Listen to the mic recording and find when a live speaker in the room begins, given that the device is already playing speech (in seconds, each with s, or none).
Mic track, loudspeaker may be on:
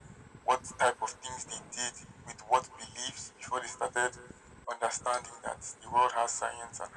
none